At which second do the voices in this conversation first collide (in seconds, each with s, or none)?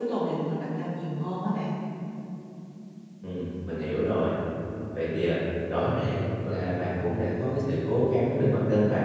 none